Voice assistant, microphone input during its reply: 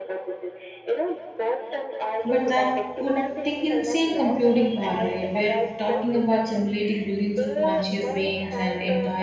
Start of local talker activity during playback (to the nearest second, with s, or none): 2 s